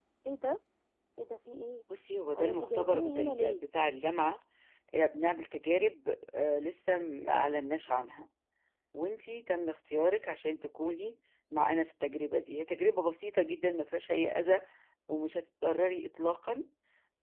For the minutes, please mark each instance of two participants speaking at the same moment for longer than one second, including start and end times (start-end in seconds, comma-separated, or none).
2.4-3.6